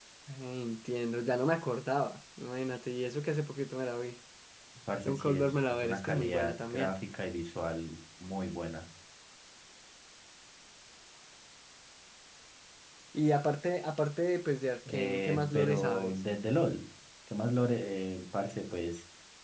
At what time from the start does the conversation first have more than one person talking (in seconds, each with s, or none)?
5.0 s